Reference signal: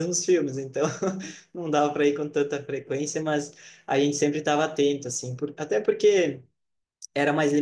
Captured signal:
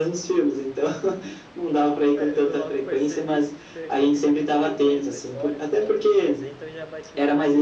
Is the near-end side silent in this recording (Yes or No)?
No